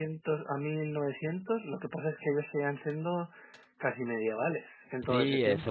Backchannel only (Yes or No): No